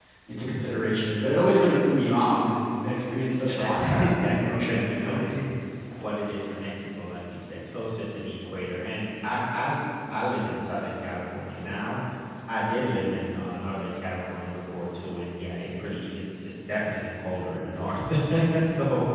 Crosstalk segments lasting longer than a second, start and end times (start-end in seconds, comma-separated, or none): 3.5-5.2